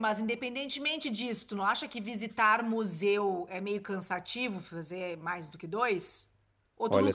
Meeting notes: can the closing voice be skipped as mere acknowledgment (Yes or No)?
No